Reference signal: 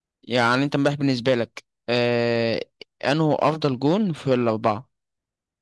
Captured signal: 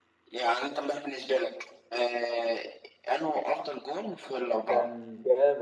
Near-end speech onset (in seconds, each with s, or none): 4.7 s